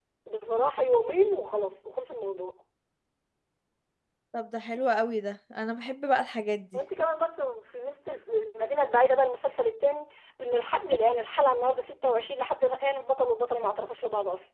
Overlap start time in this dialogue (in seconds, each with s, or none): none